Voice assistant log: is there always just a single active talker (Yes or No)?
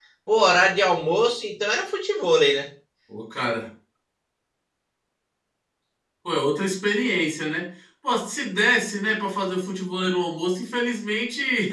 Yes